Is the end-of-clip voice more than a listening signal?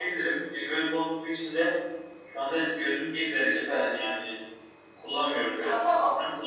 No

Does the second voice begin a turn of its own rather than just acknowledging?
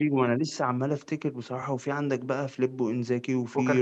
No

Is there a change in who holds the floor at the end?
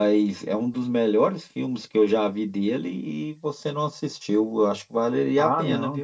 Yes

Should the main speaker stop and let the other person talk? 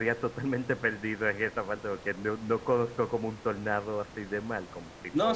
Yes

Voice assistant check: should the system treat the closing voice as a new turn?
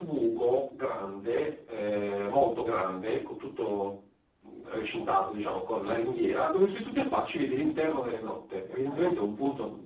No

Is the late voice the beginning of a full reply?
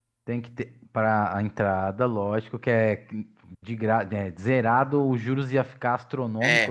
Yes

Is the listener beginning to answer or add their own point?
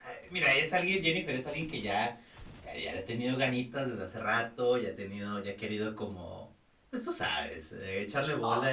No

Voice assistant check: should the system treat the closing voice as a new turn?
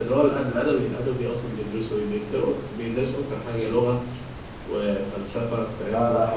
Yes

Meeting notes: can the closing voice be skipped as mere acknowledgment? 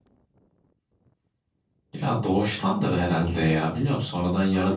No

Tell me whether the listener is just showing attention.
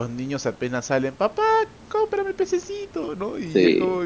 Yes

